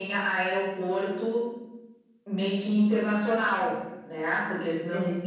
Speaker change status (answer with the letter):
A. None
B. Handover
A